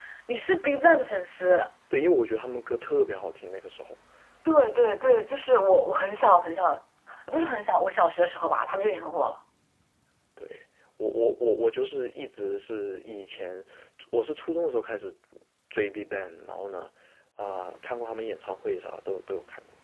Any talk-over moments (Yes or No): No